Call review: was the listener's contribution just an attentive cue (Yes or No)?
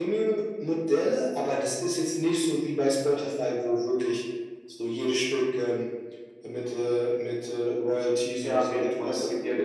No